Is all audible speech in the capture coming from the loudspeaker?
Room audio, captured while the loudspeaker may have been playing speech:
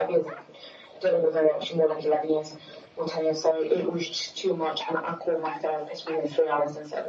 Yes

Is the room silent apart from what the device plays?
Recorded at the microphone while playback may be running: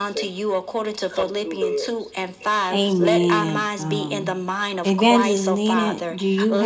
No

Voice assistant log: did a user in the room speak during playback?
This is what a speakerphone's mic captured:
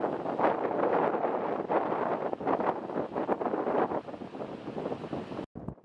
No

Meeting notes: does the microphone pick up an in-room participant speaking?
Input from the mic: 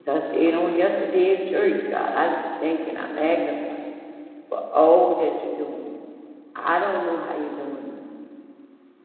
Yes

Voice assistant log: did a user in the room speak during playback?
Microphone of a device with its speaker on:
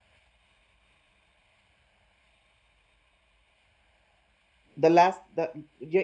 Yes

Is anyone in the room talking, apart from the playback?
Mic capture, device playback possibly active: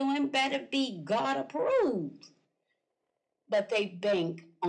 No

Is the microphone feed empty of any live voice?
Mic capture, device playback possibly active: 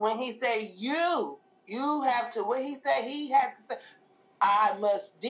Yes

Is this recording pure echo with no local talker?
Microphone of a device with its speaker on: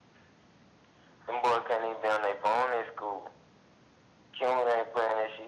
Yes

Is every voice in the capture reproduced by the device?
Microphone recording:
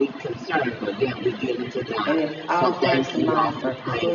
No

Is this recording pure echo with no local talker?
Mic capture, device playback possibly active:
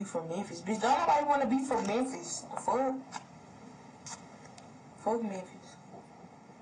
Yes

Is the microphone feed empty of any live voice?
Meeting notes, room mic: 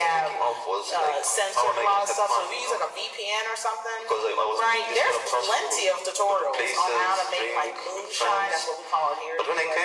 Yes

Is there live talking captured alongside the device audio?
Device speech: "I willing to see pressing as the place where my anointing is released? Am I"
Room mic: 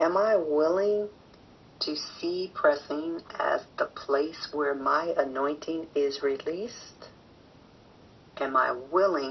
No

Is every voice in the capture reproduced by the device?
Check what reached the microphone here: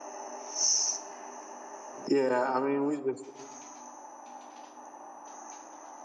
No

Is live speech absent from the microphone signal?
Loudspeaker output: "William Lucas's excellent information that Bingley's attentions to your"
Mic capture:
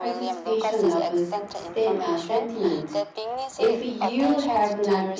No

